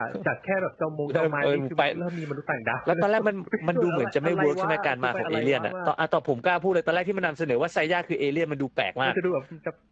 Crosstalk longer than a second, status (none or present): present